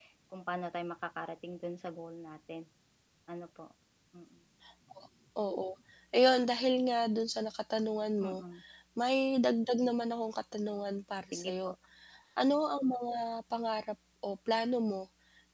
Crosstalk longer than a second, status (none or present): none